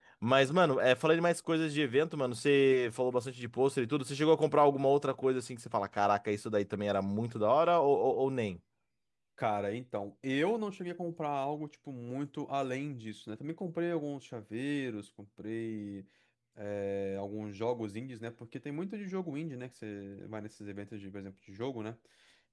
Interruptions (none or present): none